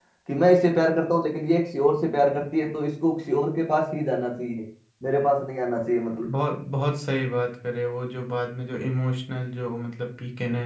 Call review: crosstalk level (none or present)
none